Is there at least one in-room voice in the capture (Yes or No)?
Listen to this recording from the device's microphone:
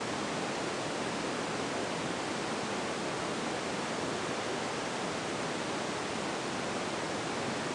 No